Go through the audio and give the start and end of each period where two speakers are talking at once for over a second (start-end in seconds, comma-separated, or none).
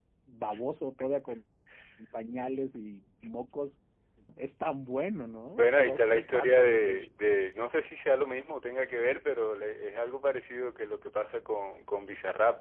5.5-7.1